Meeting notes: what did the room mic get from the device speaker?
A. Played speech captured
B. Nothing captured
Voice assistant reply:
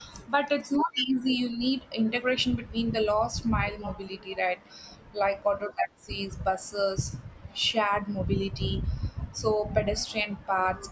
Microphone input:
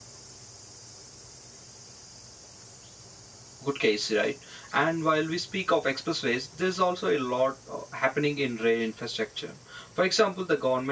B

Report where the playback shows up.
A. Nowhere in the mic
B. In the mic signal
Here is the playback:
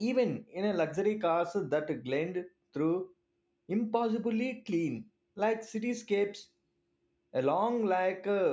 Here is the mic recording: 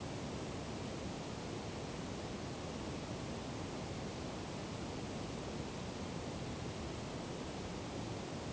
A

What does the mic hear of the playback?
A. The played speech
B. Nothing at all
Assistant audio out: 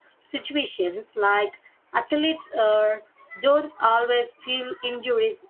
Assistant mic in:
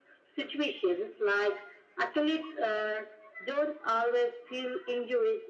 A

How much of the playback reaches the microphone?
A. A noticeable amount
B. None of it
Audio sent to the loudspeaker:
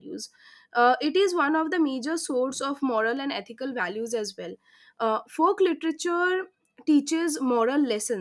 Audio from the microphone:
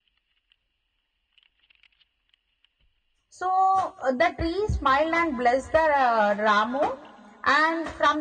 B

